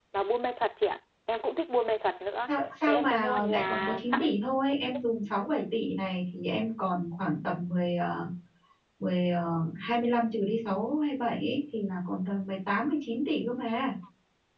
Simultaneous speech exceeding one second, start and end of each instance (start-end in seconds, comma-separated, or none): 2.9-4.3